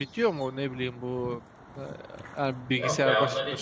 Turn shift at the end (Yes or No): Yes